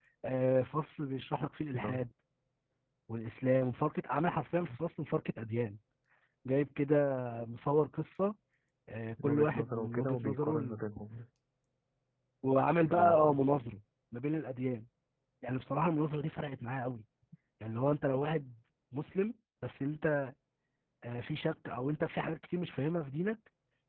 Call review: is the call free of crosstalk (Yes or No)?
No